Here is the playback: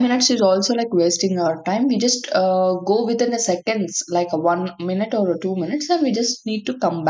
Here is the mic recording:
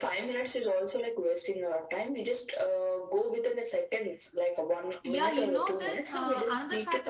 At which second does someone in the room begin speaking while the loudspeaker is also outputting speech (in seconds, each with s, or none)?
5.0 s